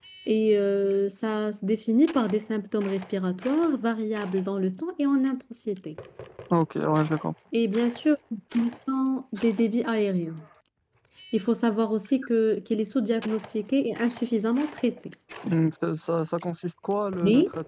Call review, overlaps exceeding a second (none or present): none